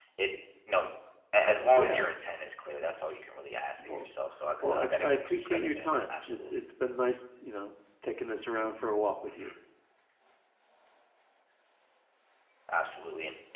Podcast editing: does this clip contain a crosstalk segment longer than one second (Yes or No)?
Yes